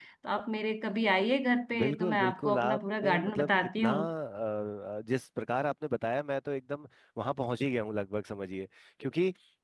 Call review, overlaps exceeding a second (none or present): present